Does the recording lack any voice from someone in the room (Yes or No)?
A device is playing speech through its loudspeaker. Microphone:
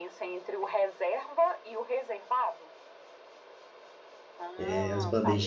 No